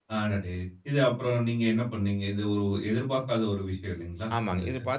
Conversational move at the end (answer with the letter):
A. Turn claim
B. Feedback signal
A